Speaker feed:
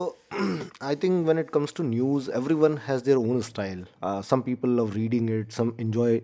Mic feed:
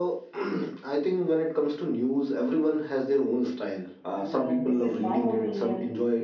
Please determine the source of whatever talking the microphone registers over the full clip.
both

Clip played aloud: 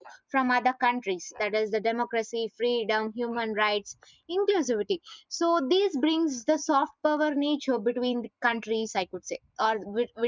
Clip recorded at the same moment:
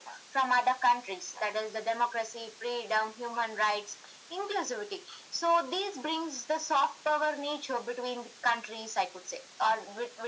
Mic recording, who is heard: echo only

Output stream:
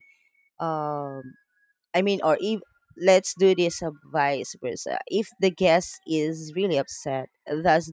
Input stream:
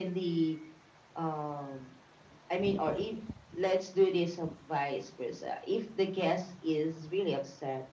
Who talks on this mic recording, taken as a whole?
echo only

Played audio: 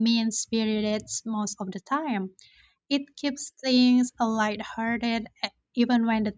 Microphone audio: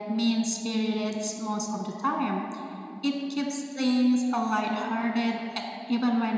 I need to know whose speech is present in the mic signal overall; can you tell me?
echo only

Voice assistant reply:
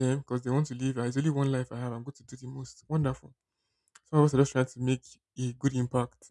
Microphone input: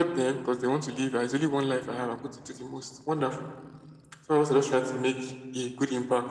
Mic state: echo only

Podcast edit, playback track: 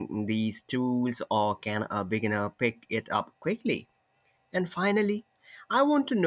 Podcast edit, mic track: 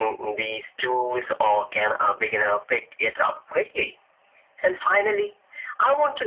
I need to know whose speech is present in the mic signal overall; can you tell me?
echo only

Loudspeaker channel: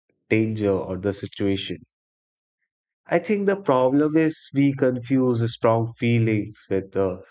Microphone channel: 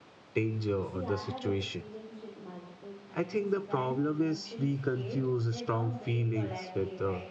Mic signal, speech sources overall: both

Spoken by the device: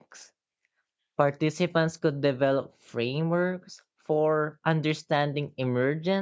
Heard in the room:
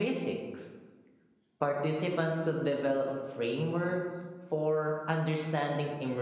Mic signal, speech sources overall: echo only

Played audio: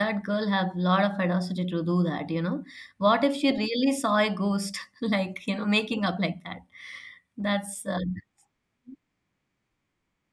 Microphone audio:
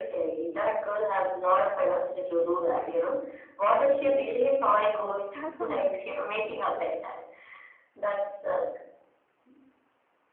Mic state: both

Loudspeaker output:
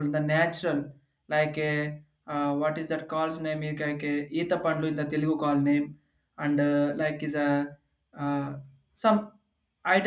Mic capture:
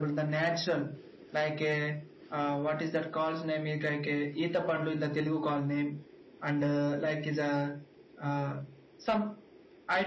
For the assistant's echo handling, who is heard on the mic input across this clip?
echo only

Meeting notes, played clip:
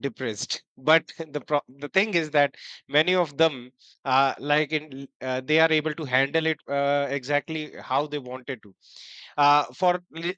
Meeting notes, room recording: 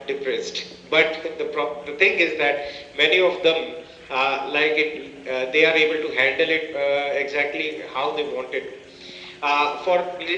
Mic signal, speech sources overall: echo only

